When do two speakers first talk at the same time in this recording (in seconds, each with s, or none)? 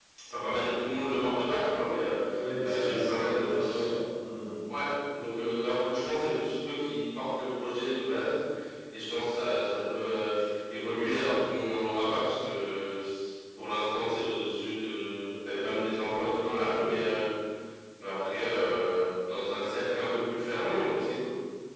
2.6 s